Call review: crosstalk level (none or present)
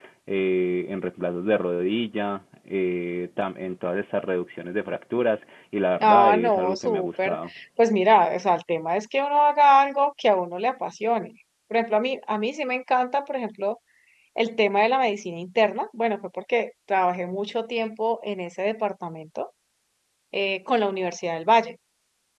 present